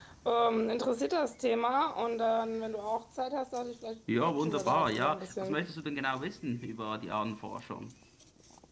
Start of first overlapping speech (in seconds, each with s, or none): 4.1 s